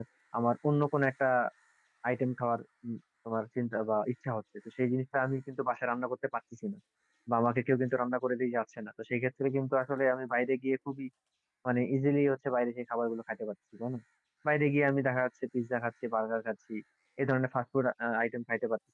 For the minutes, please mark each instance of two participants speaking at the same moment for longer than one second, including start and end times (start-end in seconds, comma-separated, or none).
none